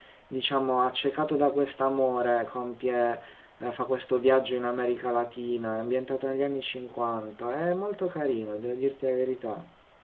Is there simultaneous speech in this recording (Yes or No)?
No